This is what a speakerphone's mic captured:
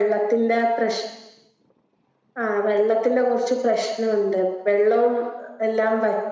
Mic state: echo only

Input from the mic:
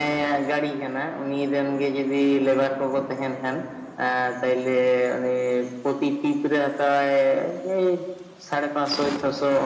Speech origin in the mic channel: echo only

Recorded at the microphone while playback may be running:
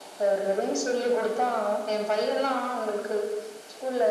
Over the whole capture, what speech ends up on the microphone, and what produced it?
echo only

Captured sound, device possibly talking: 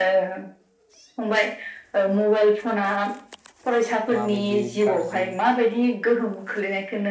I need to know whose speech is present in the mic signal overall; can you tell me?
both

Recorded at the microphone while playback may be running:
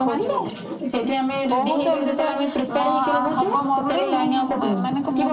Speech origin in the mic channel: both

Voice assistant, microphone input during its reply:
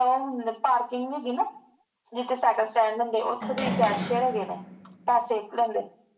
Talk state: both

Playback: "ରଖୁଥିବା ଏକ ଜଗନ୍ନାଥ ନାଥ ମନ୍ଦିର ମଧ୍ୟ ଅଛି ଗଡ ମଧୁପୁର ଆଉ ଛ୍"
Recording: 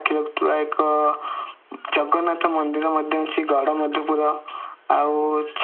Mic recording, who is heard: echo only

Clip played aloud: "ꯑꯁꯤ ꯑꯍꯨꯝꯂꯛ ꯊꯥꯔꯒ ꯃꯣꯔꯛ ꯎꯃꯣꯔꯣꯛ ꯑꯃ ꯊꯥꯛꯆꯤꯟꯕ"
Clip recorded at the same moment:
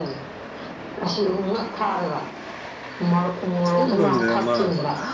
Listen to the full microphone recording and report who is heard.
both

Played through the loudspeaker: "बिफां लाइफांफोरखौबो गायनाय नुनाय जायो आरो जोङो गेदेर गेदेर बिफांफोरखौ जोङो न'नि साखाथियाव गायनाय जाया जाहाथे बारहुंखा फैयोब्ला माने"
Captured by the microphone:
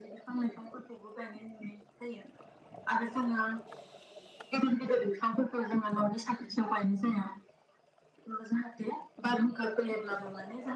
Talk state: echo only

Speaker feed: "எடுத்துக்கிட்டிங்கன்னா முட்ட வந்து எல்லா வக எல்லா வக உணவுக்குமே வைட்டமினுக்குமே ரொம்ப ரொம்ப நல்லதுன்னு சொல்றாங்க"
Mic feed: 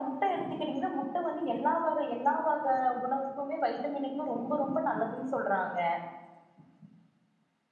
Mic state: echo only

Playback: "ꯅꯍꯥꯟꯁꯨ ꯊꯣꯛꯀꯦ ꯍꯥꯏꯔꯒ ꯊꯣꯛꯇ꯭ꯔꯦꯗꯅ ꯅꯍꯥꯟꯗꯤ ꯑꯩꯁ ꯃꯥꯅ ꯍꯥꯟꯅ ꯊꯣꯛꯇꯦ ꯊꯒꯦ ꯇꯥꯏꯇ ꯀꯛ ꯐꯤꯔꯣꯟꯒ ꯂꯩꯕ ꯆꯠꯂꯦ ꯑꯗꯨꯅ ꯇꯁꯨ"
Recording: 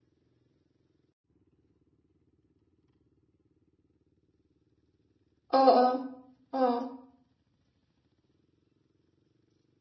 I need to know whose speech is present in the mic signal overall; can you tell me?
user only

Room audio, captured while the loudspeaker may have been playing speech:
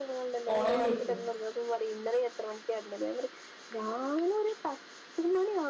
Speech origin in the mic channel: both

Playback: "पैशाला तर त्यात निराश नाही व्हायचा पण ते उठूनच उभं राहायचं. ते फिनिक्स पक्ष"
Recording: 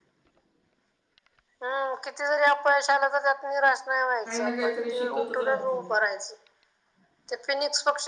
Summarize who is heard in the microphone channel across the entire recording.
both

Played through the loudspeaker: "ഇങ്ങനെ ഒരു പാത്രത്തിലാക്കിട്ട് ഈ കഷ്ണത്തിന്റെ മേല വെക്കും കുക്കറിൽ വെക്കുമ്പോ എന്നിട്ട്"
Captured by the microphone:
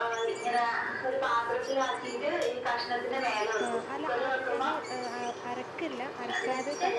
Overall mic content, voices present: both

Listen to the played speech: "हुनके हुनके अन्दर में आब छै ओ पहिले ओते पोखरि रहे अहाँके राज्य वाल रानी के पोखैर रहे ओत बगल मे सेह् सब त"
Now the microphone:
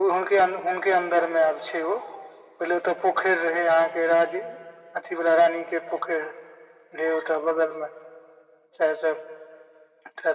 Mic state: echo only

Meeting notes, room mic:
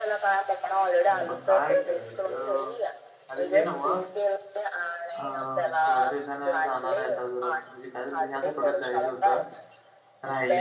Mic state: both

